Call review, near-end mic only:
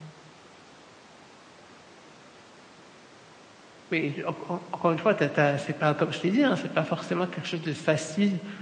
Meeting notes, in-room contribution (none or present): present